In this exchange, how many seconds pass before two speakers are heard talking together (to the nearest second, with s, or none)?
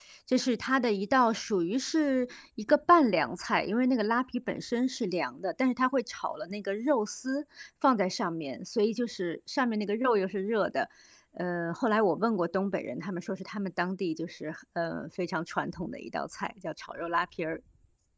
none